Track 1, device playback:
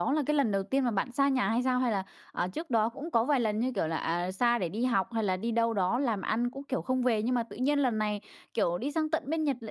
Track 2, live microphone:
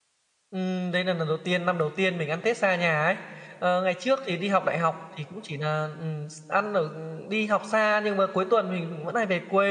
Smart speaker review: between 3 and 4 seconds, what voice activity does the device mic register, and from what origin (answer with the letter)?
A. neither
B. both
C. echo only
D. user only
D